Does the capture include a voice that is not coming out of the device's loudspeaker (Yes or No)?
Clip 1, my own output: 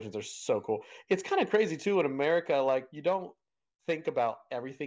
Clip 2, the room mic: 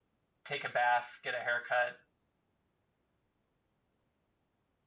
Yes